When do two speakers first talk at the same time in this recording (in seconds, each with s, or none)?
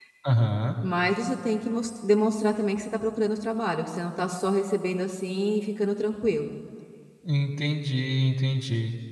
none